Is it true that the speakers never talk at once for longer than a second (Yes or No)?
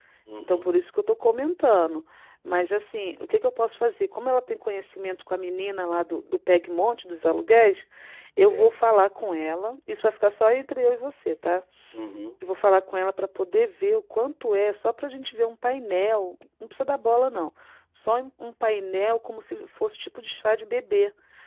Yes